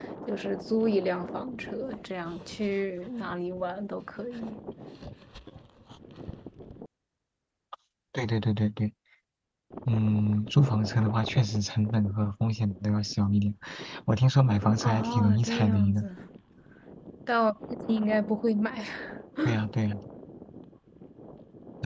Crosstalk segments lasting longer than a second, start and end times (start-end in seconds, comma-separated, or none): 14.8-16.1